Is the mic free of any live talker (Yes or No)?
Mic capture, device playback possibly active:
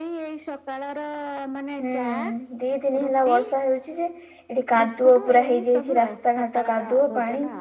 No